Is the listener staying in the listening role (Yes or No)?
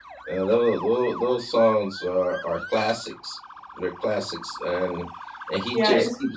No